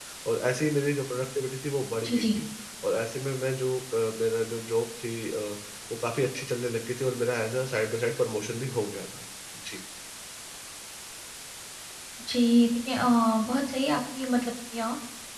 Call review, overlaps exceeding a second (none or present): none